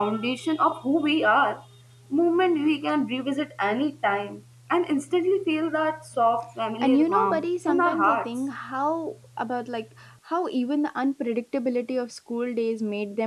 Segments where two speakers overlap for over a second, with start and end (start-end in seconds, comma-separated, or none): 6.8-8.3